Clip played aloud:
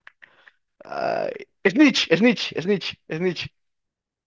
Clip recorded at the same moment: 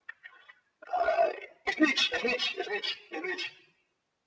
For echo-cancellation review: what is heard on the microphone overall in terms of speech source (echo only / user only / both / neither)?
echo only